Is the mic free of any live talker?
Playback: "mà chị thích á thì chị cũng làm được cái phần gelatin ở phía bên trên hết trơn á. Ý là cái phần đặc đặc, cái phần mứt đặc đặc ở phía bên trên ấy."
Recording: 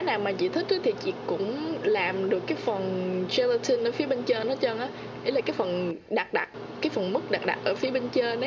Yes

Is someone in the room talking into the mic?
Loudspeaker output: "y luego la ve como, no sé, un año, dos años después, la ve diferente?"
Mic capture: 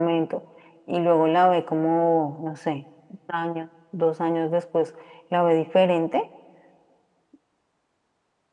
No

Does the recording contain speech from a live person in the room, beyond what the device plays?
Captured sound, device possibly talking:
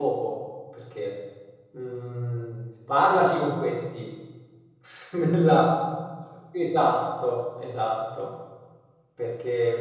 Yes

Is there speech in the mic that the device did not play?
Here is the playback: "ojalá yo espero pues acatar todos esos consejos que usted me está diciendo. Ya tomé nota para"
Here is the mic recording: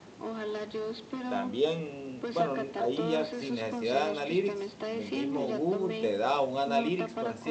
Yes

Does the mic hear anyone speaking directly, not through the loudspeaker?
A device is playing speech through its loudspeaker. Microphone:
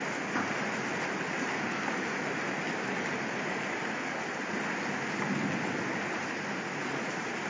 No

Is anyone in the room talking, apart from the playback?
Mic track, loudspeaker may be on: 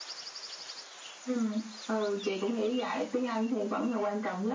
No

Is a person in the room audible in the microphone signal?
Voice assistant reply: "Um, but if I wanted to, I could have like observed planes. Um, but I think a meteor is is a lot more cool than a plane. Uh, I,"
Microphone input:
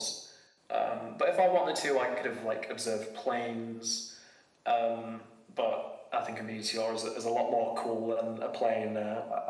No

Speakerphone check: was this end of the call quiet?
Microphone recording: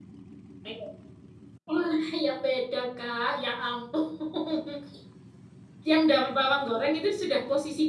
No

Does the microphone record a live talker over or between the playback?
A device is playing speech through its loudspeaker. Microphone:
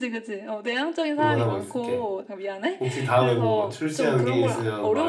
Yes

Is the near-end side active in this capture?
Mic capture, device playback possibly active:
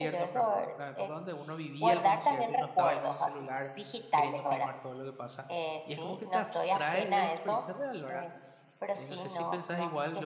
Yes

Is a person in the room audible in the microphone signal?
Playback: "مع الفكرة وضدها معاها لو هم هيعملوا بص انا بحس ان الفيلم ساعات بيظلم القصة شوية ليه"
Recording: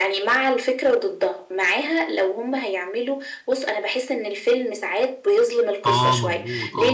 Yes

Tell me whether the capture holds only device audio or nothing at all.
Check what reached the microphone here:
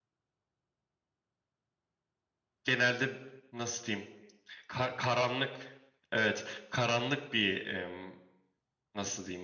No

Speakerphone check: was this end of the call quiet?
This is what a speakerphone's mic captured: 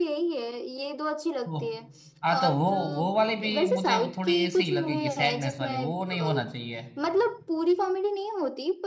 No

